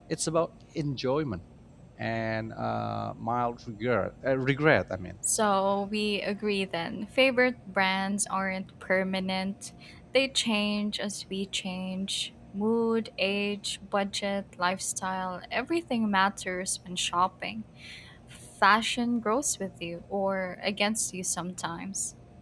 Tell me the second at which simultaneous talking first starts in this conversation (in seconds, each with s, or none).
none